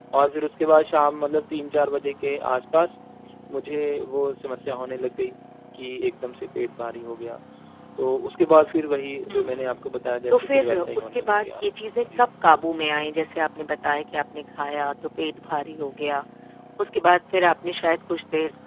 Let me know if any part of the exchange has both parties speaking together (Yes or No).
Yes